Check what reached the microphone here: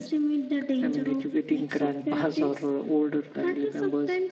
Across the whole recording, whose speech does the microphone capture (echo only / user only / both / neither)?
echo only